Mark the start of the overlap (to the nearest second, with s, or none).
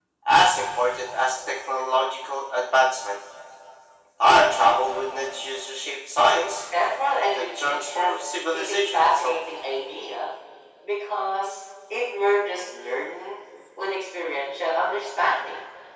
7 s